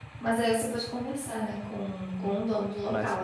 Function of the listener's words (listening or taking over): taking over